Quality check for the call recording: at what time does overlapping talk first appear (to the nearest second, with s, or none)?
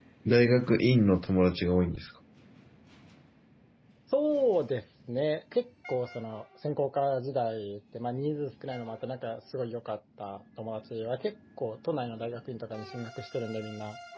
none